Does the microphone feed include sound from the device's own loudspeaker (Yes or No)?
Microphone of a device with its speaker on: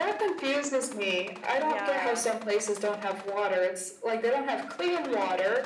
Yes